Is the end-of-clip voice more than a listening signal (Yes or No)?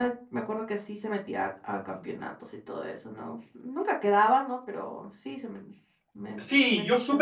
Yes